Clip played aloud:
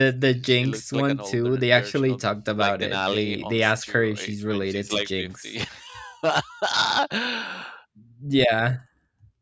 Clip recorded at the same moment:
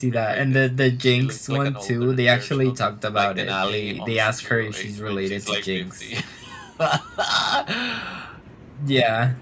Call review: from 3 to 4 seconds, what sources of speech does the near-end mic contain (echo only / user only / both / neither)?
echo only